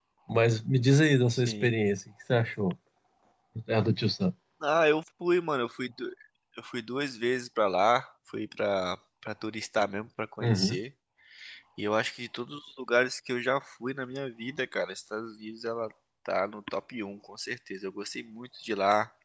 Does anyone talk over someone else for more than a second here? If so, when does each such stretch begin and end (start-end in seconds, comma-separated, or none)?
none